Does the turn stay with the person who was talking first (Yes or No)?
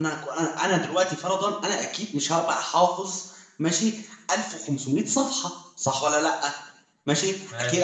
Yes